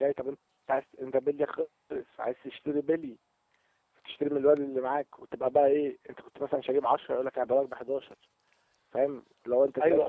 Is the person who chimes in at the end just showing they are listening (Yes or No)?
No